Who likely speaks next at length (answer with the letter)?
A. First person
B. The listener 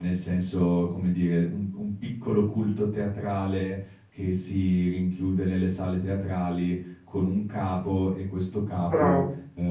A